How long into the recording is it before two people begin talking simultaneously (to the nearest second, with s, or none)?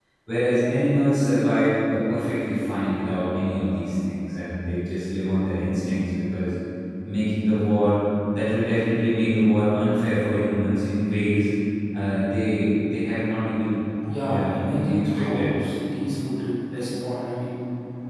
14 s